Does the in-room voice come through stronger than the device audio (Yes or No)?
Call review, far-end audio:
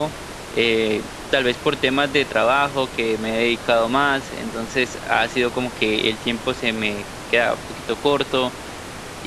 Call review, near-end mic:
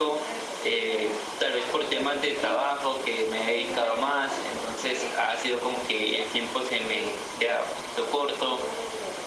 No